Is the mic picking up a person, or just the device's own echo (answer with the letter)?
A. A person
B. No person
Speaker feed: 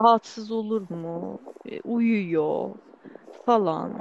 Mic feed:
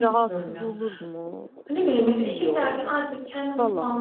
A